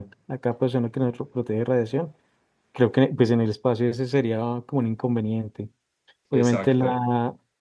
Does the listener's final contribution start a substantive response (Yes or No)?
No